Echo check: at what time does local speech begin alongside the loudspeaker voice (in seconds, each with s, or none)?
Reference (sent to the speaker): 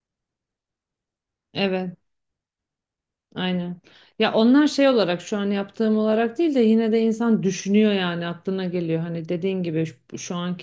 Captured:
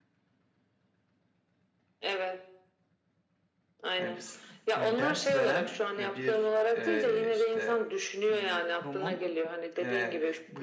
4.0 s